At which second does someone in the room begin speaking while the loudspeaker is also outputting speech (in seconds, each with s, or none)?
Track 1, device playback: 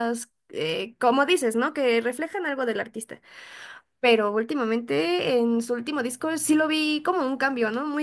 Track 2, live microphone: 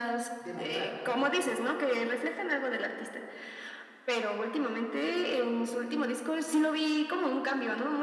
0.4 s